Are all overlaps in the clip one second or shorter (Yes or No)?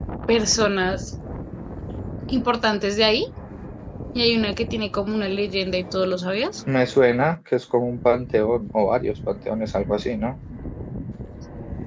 Yes